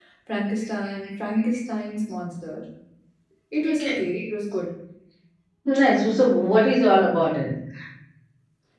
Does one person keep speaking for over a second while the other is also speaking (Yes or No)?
No